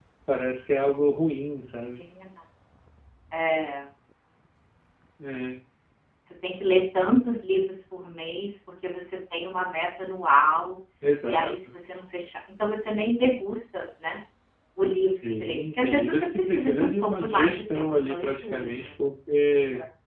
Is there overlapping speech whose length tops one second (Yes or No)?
Yes